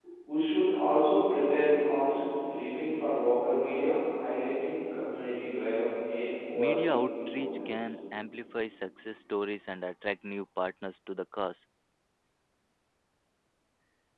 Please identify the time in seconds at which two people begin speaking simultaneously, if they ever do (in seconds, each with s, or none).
6.5 s